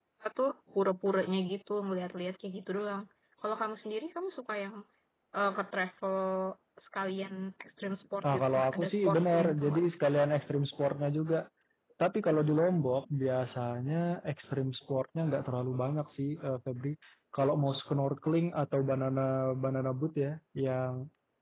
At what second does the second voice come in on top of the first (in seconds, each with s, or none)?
8.2 s